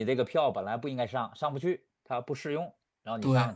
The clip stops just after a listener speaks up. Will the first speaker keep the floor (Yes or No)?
No